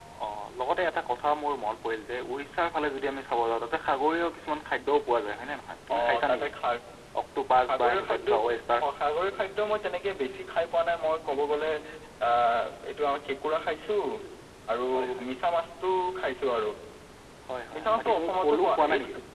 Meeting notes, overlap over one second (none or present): present